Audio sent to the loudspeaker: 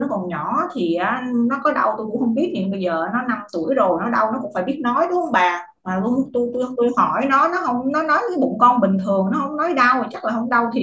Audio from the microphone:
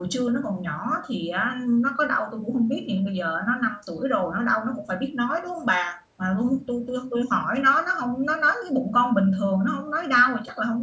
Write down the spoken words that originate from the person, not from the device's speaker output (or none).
none